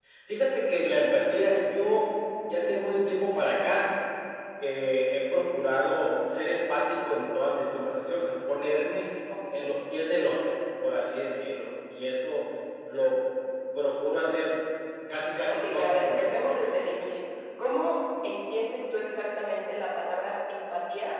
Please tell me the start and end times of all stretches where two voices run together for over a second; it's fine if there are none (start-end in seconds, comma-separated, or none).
15.5-16.8